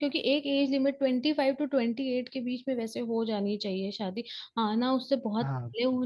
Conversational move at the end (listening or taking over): listening